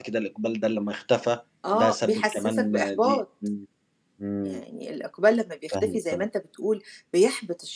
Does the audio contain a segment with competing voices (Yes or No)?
Yes